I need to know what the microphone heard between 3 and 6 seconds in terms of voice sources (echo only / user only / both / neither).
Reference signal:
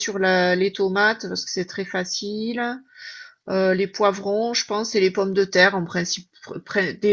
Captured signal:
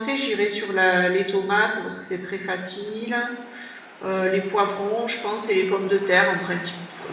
echo only